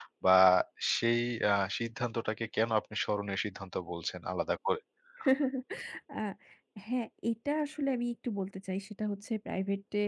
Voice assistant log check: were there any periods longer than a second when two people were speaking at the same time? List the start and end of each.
none

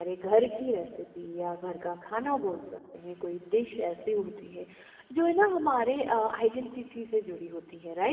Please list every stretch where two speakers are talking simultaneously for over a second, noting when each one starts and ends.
none

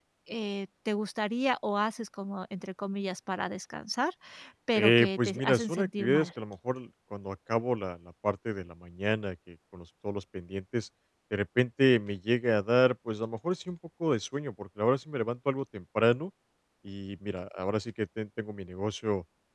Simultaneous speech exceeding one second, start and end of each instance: 4.8-6.3

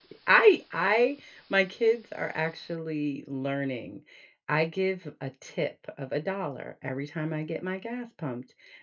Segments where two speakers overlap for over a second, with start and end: none

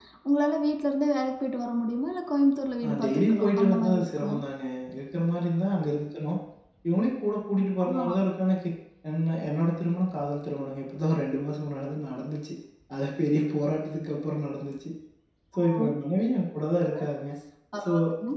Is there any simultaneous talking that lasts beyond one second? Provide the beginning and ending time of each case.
2.9-4.4

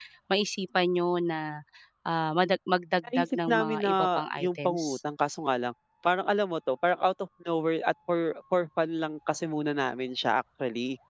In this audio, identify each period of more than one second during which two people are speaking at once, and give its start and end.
3.2-5.0

